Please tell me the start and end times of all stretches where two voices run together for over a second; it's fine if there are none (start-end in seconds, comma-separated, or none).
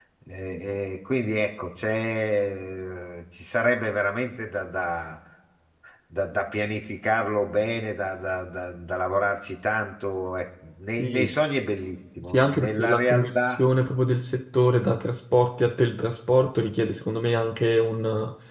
12.2-13.6